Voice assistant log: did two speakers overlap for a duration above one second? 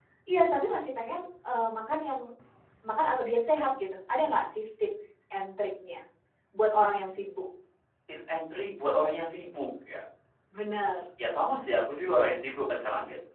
No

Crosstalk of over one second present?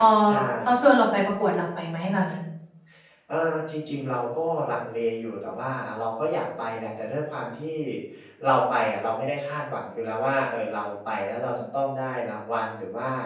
No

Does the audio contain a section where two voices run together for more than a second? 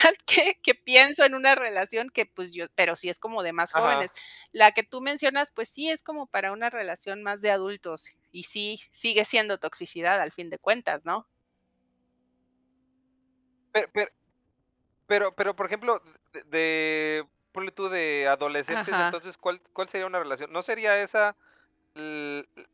No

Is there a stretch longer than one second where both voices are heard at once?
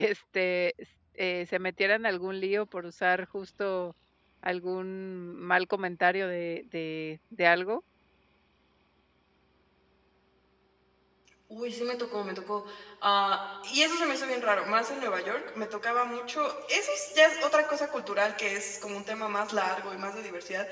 No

